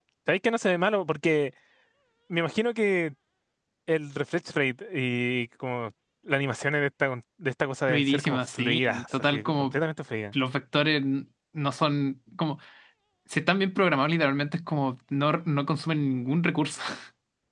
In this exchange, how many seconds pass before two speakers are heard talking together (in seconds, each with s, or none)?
7.9 s